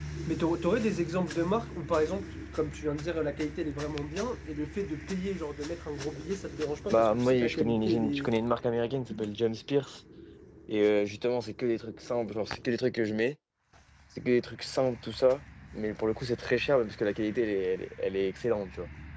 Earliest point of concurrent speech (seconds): 7 s

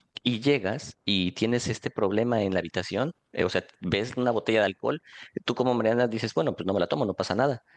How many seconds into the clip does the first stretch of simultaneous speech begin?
none

